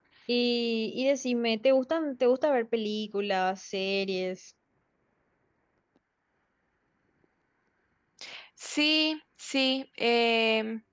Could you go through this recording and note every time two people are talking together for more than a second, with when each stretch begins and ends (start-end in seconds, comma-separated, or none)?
none